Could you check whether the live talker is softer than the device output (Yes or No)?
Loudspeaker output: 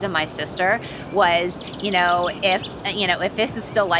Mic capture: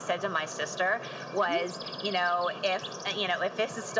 Yes